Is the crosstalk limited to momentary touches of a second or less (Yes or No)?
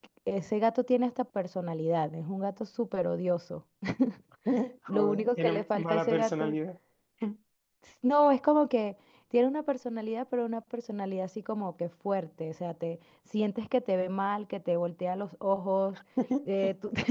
No